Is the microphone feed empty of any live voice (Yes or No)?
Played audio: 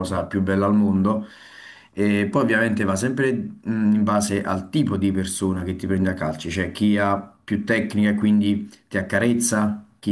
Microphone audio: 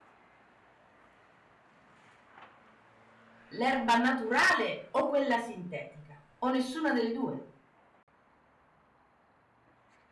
No